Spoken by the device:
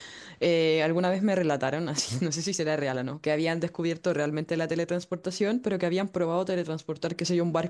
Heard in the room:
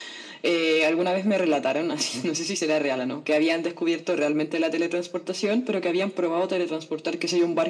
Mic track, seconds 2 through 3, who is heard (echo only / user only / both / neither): echo only